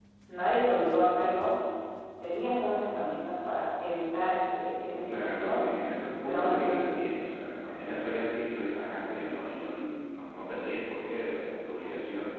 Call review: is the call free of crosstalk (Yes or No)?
No